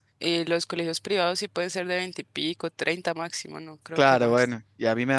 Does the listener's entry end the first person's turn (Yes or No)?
Yes